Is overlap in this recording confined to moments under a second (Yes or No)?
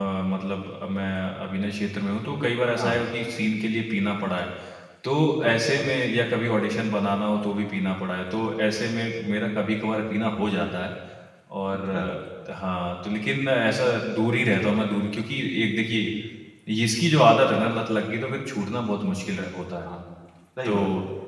Yes